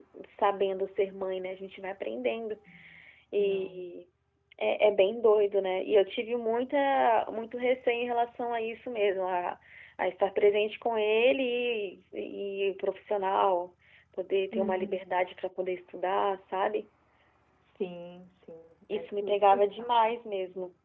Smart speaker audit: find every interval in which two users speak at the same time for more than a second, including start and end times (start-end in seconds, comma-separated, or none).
18.9-20.1